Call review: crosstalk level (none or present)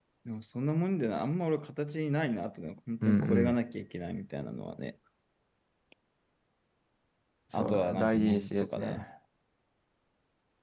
present